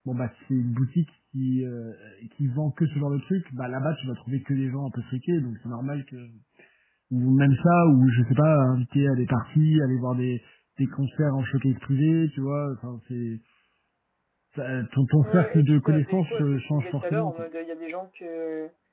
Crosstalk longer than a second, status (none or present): present